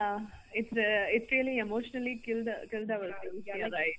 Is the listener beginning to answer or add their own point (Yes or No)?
Yes